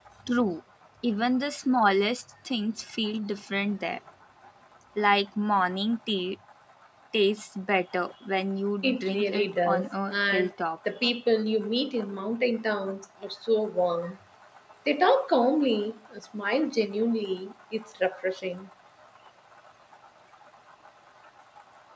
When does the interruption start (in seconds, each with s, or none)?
8.8 s